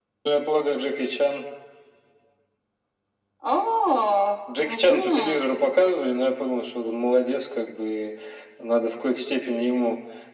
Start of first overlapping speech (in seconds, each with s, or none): 4.5 s